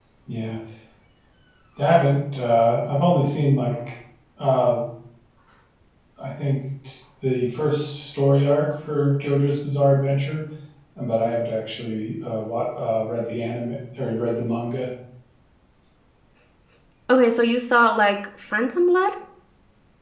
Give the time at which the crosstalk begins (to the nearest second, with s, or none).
none